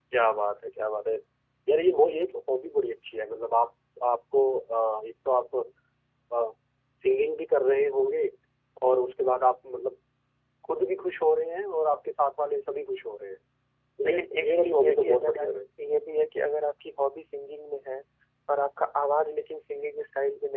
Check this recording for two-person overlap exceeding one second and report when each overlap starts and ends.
14.1-15.6

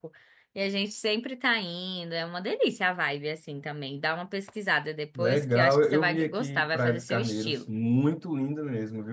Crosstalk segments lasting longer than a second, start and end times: 5.2-7.7

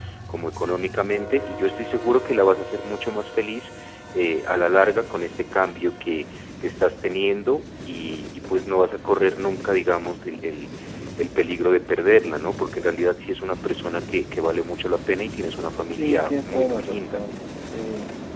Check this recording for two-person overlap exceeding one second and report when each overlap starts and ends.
16.0-17.2

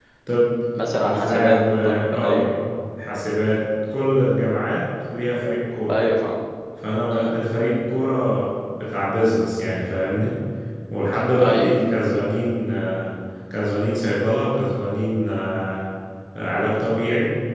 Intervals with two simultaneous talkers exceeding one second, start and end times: 1.0-2.4

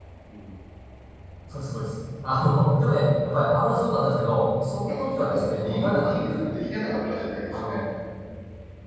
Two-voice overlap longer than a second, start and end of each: 4.9-6.5

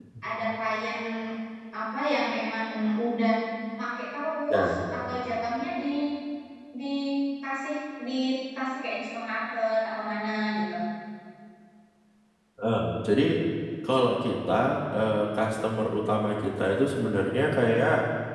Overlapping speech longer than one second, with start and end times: none

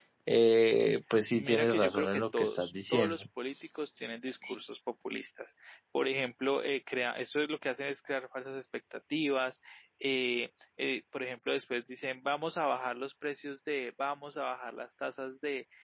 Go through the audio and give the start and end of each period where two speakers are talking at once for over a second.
1.3-3.2

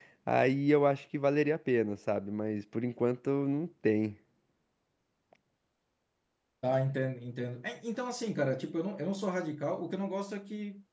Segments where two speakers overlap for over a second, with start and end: none

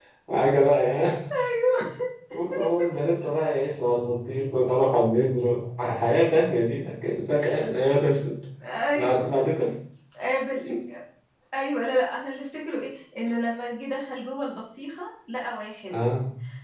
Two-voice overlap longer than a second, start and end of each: none

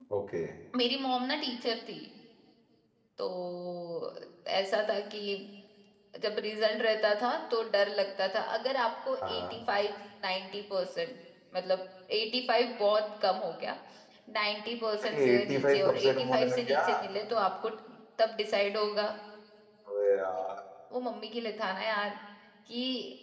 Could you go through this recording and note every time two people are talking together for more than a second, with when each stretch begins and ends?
15.0-16.8

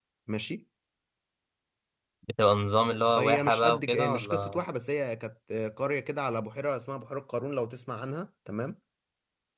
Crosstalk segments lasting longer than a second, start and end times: 3.2-4.6

